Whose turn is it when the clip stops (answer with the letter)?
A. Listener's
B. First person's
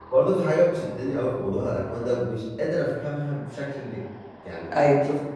B